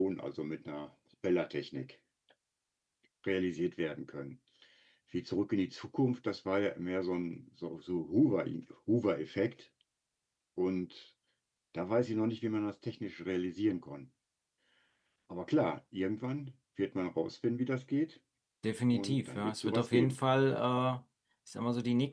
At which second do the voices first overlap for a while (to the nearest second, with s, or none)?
19 s